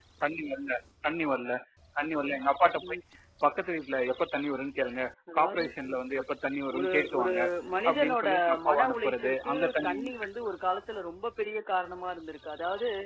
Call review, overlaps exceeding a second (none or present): present